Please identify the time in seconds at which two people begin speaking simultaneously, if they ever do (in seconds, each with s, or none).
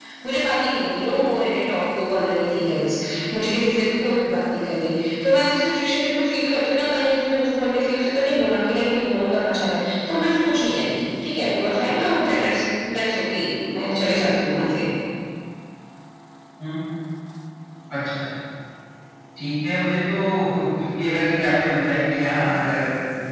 none